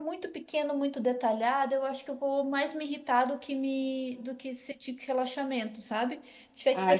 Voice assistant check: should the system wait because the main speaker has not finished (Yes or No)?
Yes